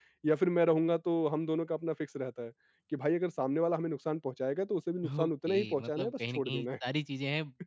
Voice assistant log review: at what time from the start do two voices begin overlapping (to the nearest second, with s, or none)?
5 s